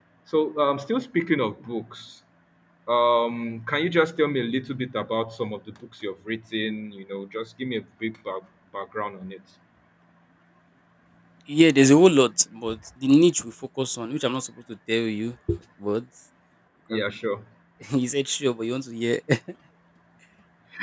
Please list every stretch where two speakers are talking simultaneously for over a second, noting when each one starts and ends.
none

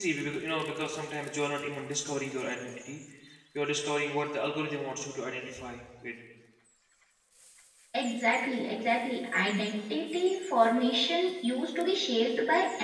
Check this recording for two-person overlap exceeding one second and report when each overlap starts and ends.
none

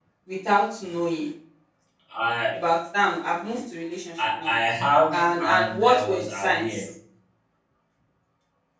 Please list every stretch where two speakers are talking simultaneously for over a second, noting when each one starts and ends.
5.1-6.7

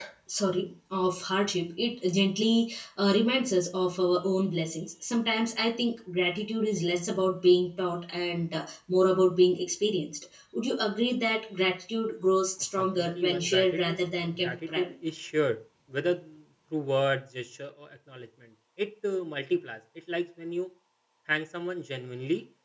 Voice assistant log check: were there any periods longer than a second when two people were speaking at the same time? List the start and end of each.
12.8-14.9

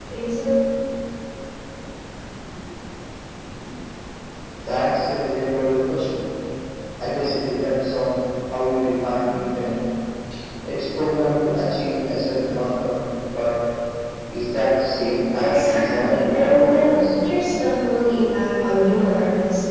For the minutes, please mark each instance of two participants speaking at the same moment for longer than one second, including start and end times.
15.4-17.0

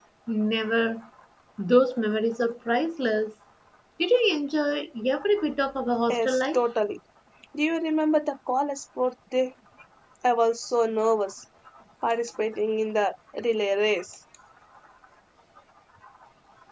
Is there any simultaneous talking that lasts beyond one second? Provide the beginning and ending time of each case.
none

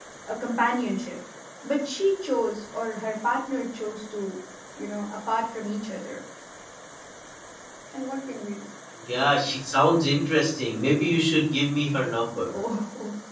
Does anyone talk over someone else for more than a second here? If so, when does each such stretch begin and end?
none

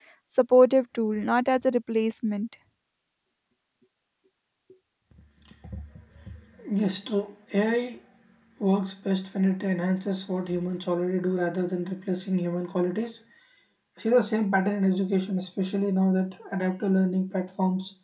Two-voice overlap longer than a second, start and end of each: none

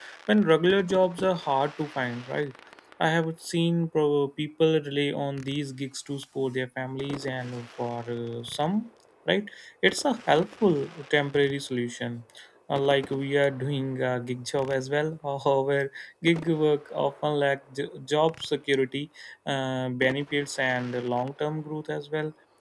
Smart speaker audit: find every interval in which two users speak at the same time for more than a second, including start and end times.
none

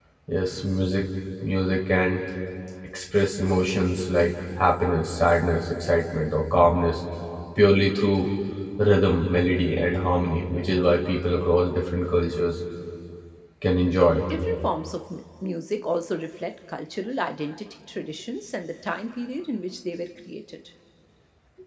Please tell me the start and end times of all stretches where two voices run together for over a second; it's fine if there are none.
none

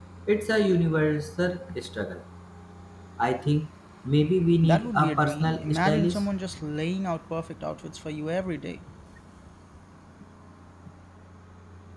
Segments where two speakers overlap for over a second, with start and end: 4.6-6.2

